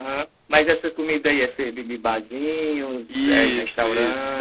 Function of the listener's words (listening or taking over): taking over